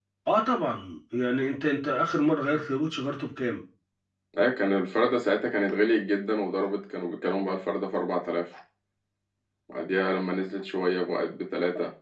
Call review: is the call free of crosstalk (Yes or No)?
Yes